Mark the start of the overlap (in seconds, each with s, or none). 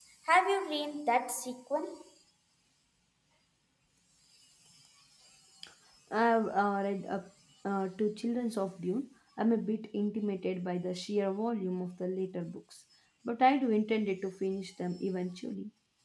none